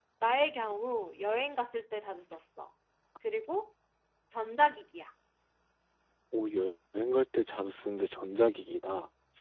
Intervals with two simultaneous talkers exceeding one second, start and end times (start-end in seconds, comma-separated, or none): none